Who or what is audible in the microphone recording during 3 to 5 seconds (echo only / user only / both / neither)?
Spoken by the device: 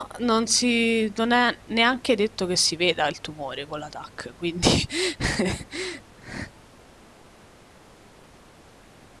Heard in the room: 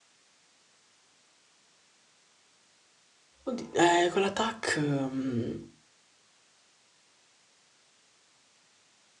user only